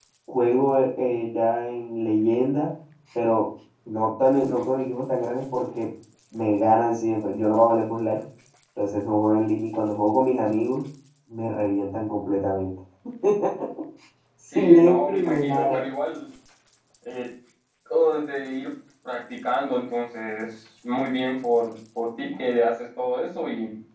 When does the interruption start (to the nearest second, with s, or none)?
15 s